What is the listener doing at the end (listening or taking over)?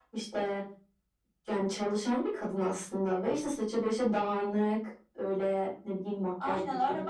taking over